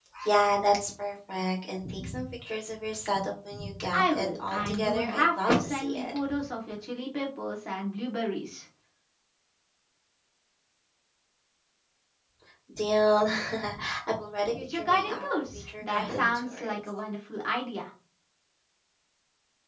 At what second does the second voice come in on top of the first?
3.9 s

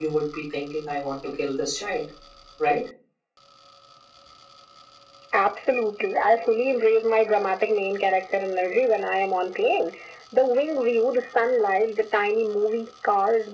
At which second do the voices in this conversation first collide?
none

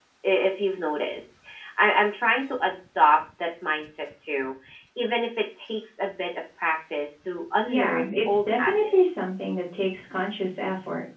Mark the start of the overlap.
7.7 s

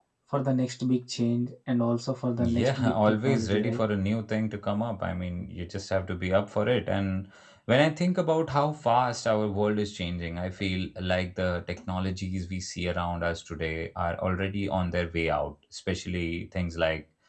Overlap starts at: 2.4 s

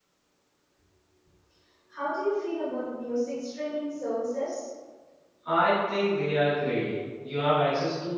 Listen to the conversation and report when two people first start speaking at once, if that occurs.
none

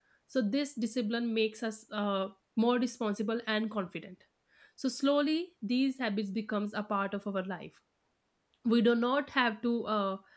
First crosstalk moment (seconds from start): none

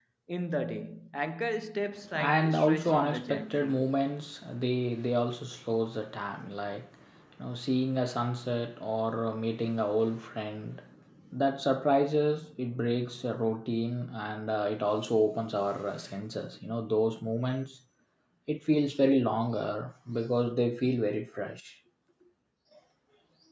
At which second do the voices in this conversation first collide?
2.2 s

